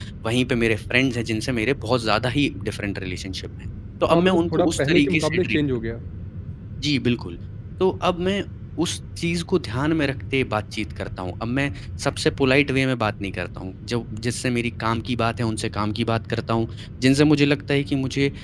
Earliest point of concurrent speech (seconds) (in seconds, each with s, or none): 4.1 s